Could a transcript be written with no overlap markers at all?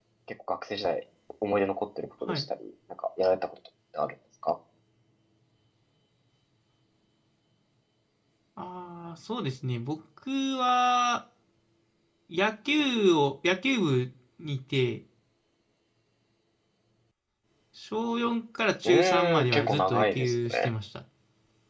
No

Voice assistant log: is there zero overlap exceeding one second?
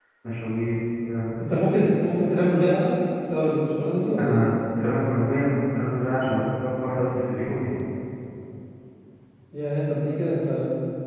Yes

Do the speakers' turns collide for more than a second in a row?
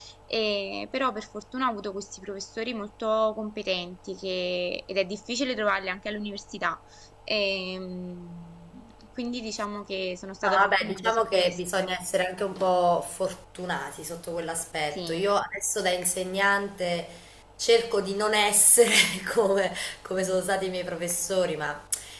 Yes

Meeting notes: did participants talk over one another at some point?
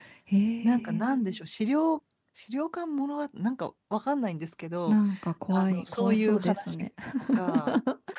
Yes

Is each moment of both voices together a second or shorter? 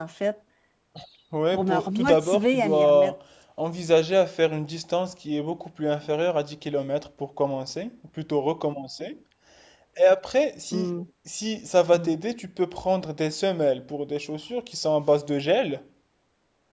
No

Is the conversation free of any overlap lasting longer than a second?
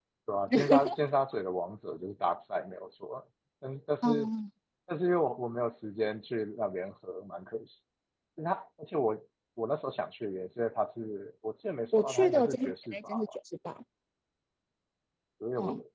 No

